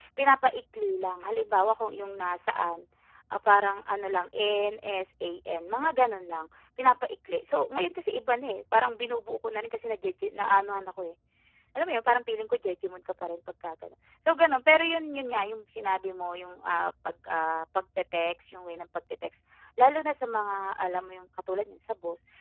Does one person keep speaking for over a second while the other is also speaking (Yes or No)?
No